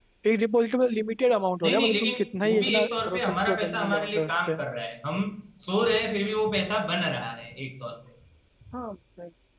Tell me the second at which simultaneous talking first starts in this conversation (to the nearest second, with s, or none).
2 s